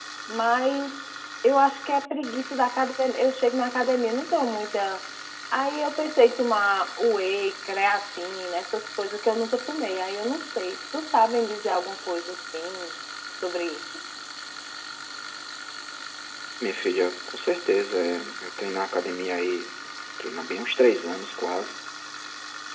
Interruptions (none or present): none